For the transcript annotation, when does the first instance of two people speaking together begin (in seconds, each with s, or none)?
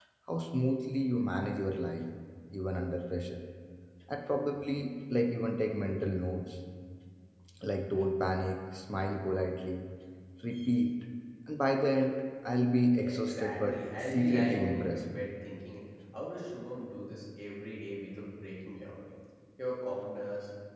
13.0 s